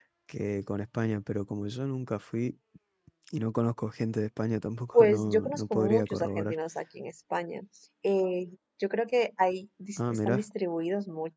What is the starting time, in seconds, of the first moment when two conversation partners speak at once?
5 s

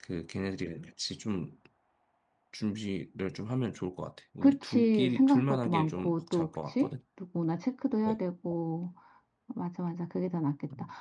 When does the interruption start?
4 s

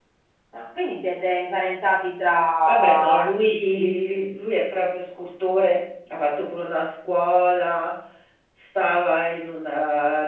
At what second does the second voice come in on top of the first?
3 s

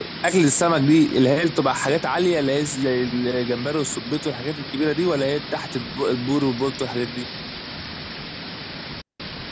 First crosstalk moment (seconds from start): none

